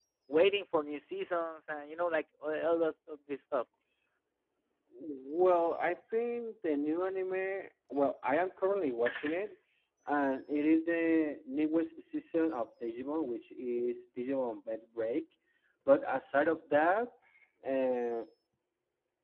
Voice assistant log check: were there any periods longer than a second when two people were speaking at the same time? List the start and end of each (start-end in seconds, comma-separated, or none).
none